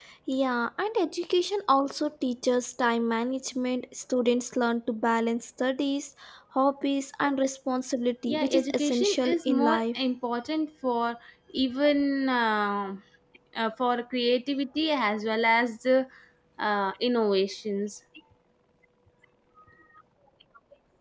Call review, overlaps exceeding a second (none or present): present